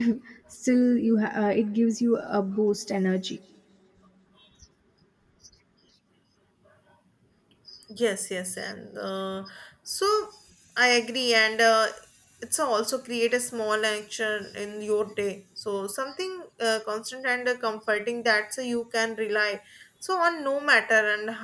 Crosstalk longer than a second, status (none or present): none